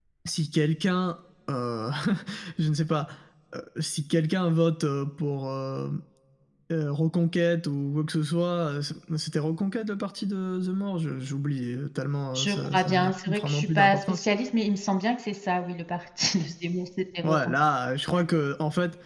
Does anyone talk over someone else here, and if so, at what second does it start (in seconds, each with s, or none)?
12.3 s